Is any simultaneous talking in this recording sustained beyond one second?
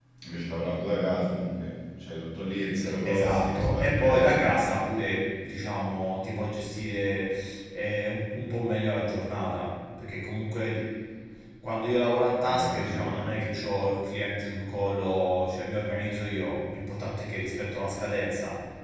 Yes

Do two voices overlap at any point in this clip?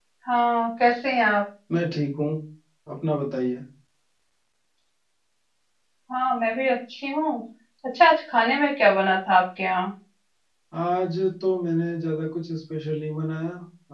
No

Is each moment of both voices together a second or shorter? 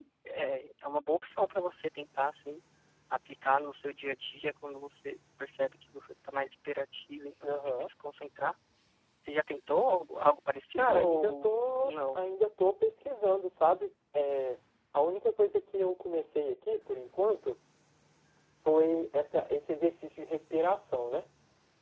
No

